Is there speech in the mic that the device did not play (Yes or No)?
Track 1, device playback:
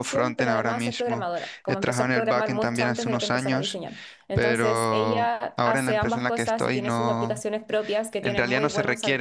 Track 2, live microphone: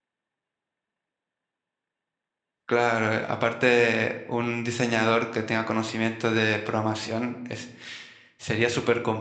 Yes